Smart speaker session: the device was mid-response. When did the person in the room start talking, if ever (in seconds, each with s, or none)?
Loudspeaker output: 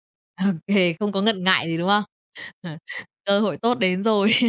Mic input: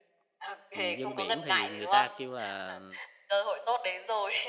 0.7 s